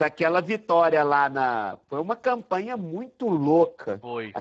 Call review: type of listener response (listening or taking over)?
listening